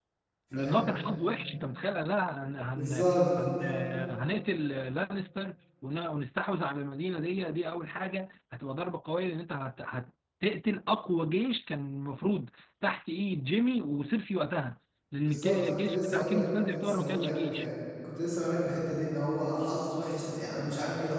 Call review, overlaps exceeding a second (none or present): present